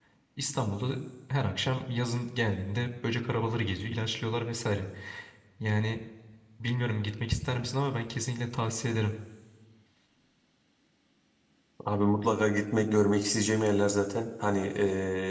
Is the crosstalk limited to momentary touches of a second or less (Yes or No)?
Yes